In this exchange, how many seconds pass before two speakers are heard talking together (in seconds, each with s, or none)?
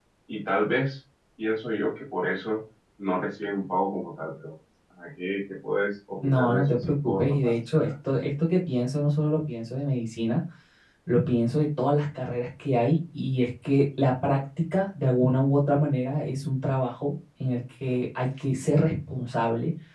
6.2 s